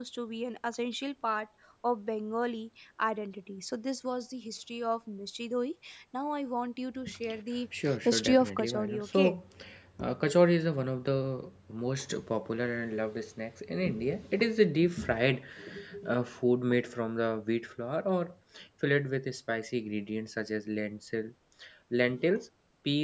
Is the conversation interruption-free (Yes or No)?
No